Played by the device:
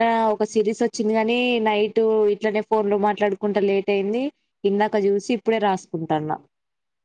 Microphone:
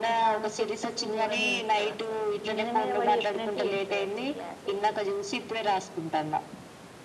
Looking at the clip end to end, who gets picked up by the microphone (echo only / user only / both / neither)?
both